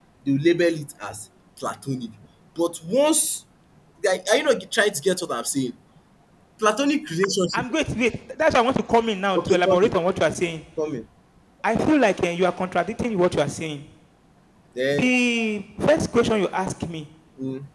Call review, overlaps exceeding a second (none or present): none